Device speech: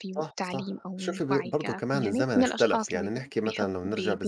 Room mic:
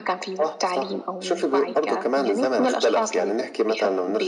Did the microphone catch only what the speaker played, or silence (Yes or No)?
Yes